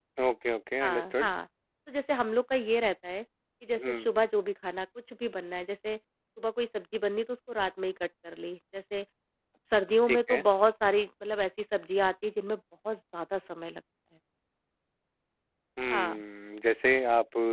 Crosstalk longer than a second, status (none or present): none